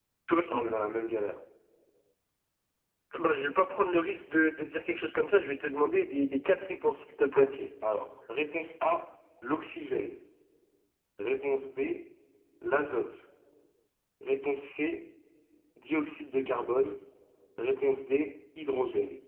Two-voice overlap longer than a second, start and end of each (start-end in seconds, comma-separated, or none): none